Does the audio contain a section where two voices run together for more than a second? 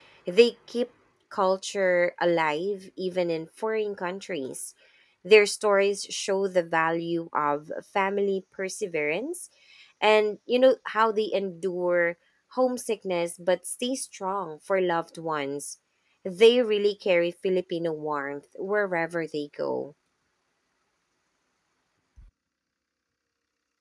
No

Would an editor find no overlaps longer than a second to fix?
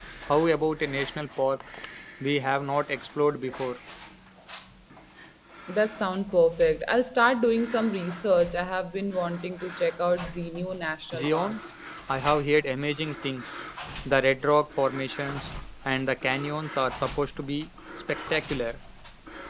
Yes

